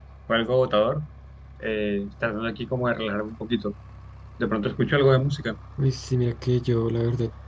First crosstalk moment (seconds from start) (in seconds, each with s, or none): none